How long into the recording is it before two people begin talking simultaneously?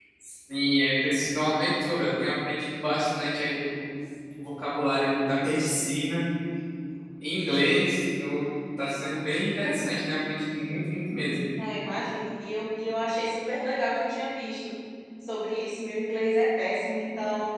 none

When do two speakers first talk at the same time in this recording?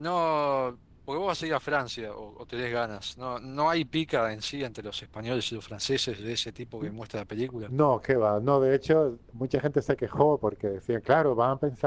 none

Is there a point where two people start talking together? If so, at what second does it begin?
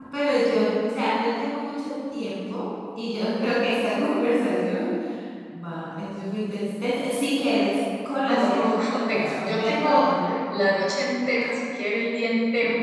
8 s

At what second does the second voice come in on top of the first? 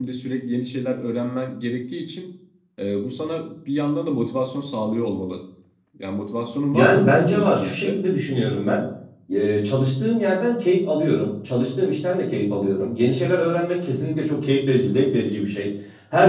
7 s

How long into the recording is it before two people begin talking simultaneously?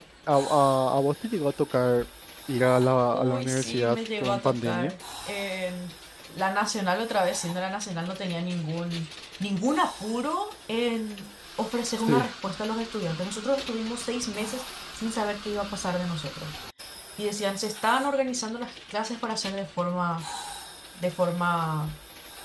3 s

